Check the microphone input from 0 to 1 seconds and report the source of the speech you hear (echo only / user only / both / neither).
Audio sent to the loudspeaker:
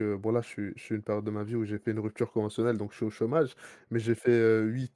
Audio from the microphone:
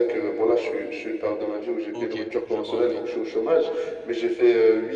echo only